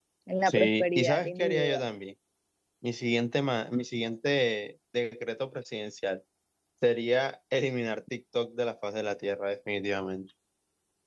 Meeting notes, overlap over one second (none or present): present